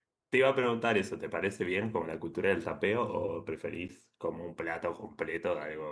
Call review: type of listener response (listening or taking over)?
taking over